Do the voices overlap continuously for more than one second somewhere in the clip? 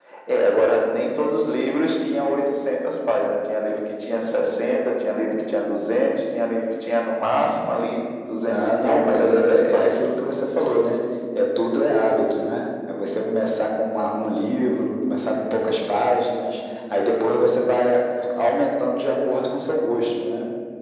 Yes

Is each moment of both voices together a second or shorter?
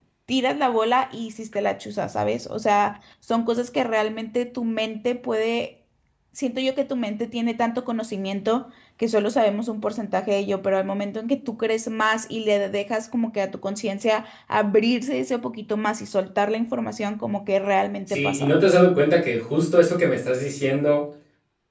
Yes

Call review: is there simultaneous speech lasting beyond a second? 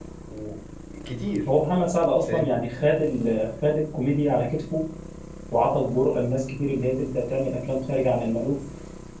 No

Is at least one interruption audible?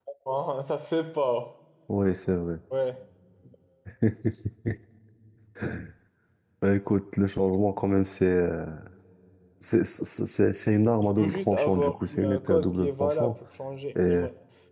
Yes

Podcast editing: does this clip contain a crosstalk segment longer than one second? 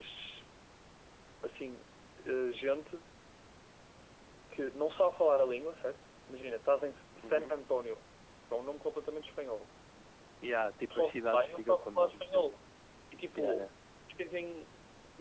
Yes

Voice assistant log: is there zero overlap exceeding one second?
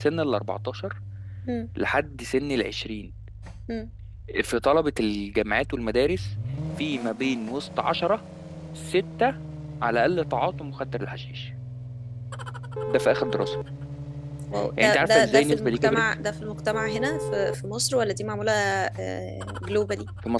No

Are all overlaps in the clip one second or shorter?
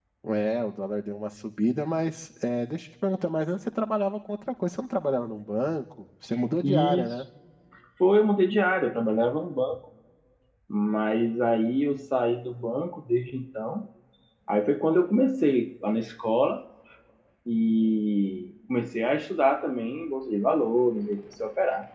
Yes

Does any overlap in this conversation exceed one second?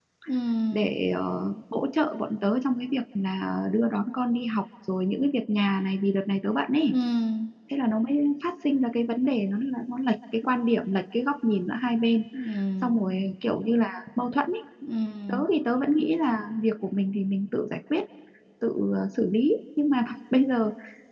No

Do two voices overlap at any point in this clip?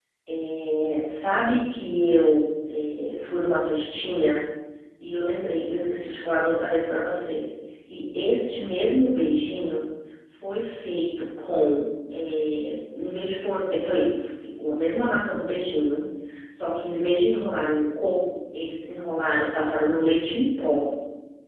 No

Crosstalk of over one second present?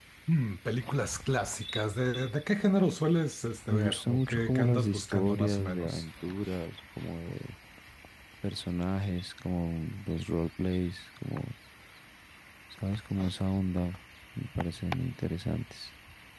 Yes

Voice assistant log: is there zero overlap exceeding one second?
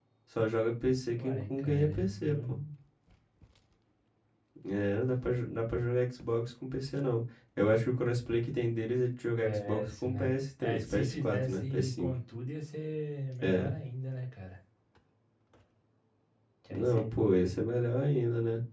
No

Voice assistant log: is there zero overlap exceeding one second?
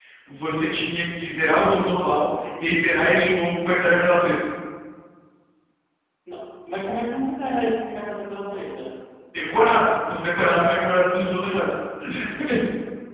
Yes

